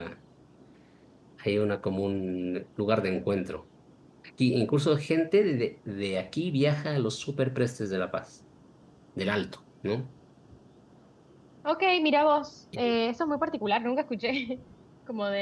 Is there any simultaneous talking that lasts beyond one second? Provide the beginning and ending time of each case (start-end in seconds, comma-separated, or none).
none